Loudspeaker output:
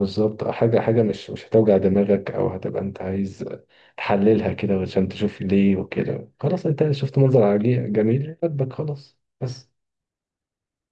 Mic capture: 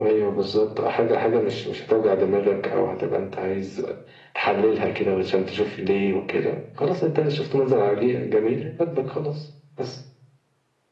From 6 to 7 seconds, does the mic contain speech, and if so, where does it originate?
echo only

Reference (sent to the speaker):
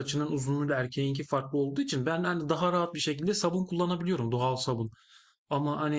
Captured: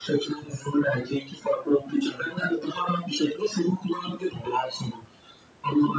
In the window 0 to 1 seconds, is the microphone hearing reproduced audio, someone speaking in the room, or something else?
echo only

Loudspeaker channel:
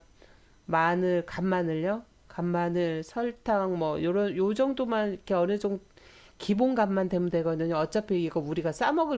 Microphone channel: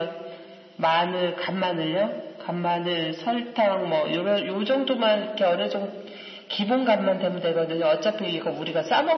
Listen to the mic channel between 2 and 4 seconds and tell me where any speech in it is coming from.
echo only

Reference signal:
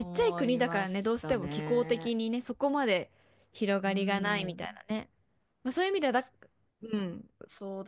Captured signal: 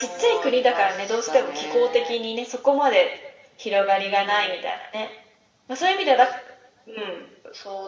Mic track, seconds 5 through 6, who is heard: echo only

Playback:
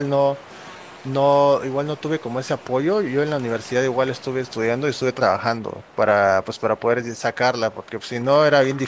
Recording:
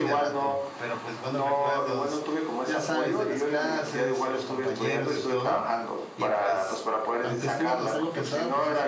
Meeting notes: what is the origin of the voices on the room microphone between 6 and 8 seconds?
both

